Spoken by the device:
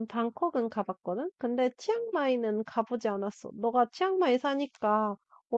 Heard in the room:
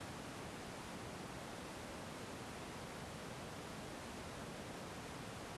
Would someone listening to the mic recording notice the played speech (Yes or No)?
No